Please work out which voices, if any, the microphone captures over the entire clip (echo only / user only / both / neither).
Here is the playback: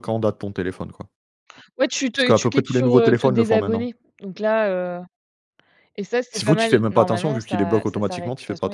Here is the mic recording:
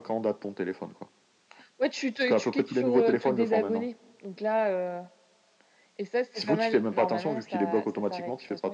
echo only